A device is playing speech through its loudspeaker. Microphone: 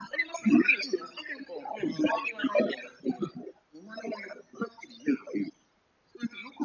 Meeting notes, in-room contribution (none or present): none